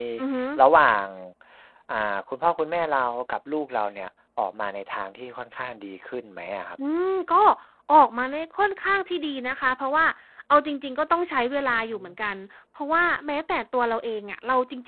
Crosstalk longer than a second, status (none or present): none